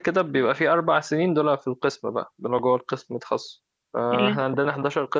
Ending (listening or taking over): listening